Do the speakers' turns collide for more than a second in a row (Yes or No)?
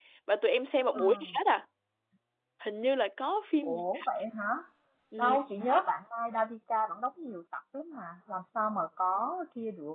No